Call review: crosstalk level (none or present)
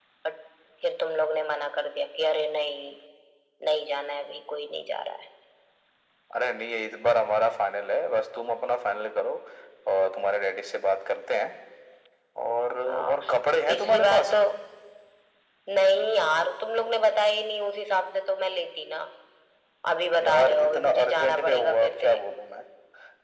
present